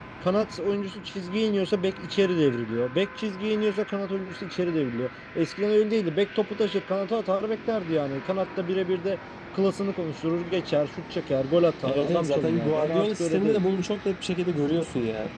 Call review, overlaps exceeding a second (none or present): present